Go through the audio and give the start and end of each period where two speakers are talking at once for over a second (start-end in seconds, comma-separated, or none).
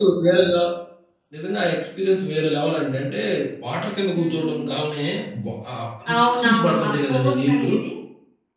6.2-7.7